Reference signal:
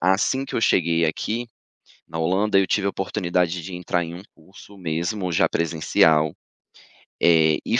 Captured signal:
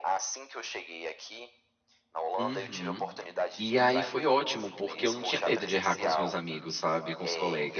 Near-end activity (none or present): present